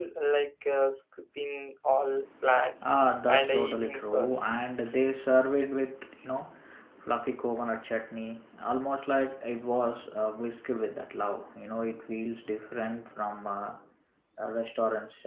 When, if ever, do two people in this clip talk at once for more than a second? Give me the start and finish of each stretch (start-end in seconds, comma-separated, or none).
3.3-4.5